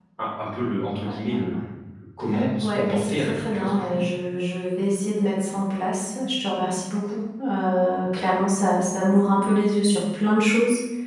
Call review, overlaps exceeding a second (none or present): present